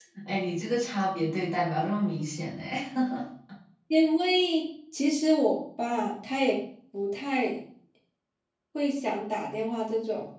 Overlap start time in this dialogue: none

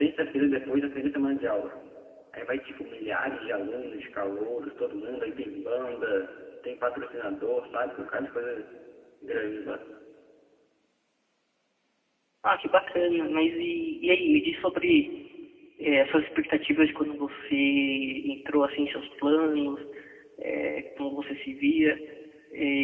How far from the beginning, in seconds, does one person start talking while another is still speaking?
none

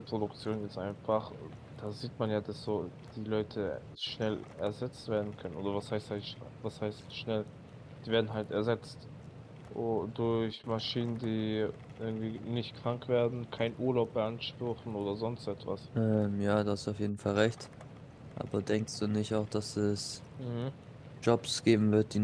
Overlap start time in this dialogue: none

